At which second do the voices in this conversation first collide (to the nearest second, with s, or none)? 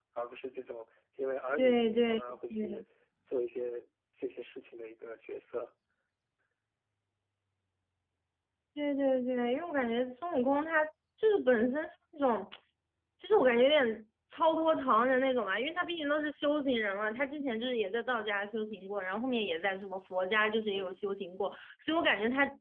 2 s